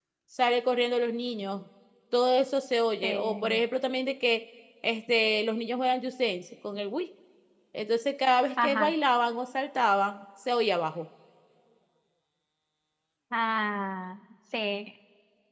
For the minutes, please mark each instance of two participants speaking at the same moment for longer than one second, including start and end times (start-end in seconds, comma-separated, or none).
none